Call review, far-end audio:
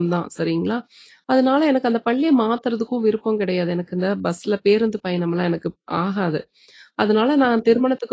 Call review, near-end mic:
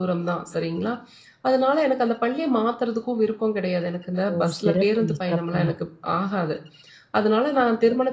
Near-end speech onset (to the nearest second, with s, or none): 4 s